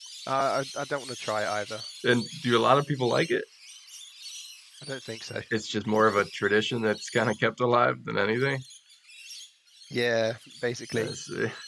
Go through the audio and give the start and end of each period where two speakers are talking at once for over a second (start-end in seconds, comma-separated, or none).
none